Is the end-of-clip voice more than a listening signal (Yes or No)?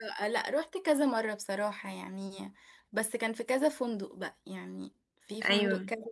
No